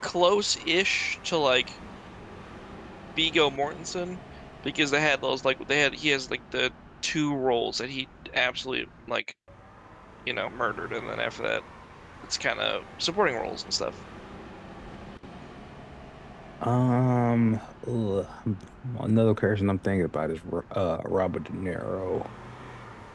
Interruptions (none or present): none